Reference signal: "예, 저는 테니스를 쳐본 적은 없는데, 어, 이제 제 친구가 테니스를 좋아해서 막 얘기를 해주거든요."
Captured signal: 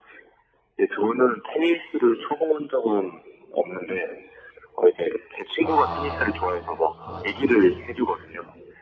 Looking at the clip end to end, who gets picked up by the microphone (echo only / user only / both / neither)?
both